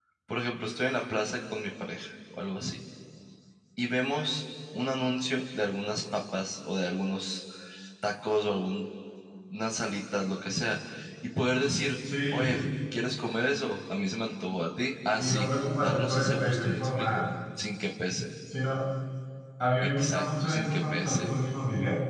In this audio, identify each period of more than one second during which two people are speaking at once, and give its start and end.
15.2-17.2, 19.8-21.3

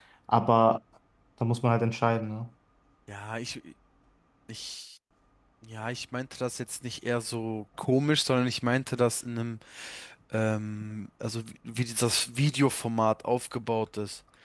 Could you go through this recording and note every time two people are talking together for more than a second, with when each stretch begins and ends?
none

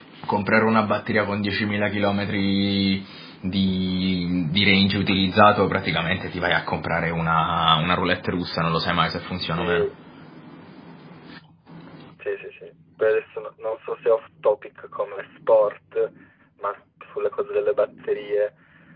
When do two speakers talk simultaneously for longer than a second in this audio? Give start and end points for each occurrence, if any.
none

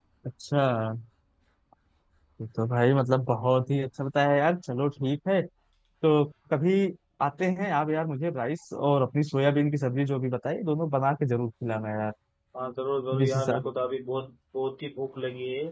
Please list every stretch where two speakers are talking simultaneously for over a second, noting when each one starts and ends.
none

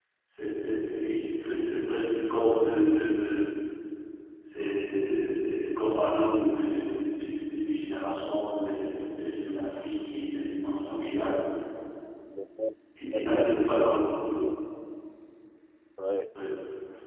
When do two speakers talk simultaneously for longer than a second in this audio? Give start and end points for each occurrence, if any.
13.1-14.4

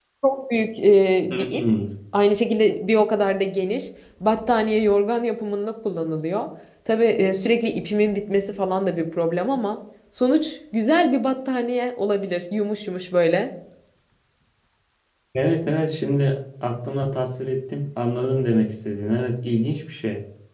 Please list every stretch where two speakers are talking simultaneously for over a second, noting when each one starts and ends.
none

